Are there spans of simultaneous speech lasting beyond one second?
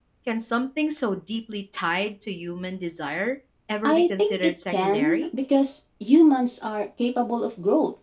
Yes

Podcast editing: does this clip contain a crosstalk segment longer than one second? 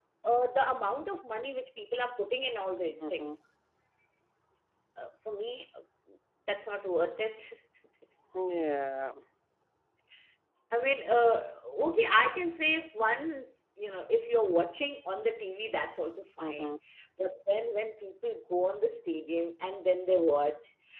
No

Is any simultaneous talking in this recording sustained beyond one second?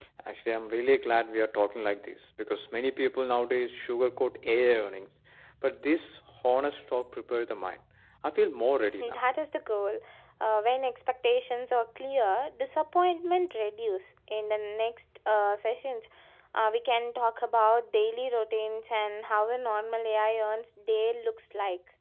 No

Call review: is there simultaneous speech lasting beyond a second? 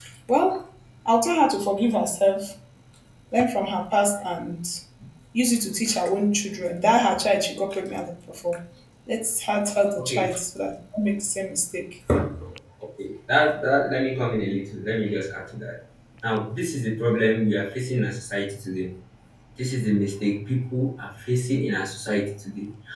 No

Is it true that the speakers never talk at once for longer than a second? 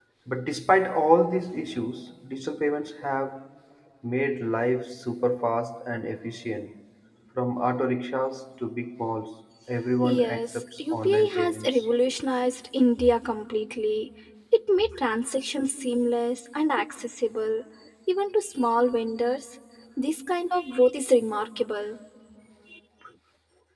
No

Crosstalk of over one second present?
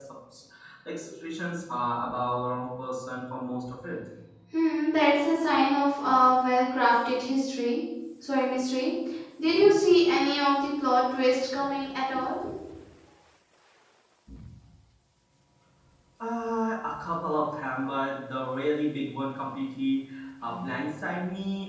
No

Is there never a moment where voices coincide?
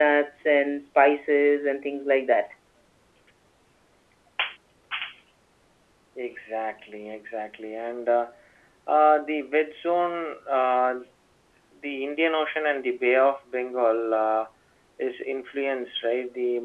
Yes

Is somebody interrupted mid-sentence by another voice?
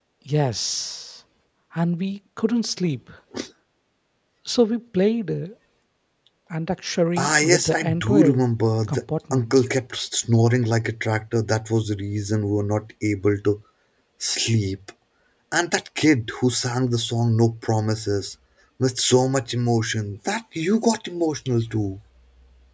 Yes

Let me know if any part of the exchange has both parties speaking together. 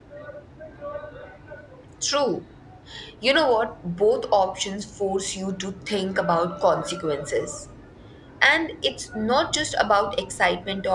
No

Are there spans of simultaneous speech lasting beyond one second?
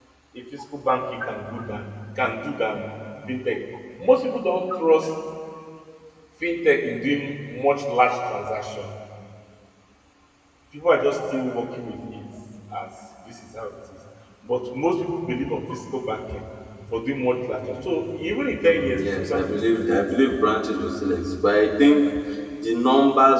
Yes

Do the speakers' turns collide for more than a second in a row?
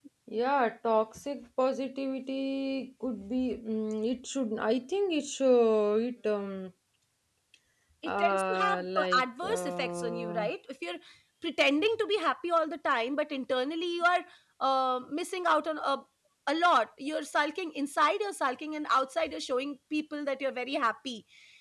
Yes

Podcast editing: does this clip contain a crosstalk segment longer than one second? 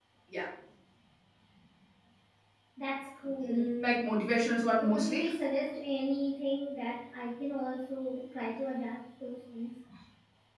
No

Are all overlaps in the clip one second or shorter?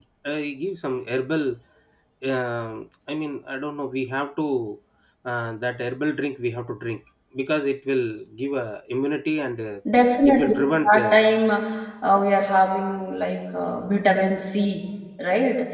Yes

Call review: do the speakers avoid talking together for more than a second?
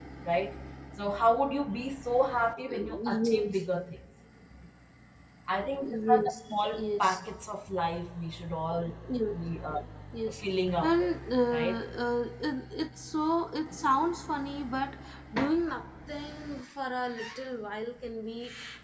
No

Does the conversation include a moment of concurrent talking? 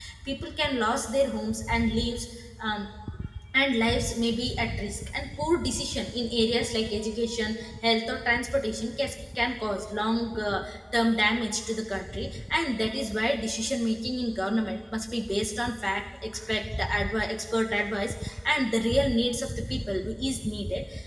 No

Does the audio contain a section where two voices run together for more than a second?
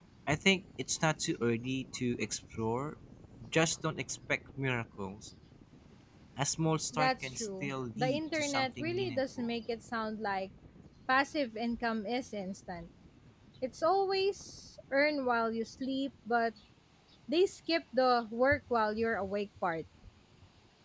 Yes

